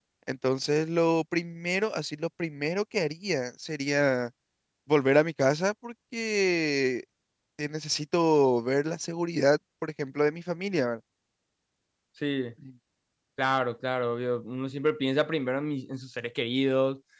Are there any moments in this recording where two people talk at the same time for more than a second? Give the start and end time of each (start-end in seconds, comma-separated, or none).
none